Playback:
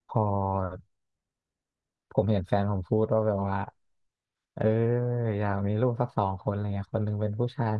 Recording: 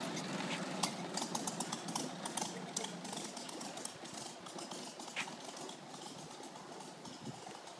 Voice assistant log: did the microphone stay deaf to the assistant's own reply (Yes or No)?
Yes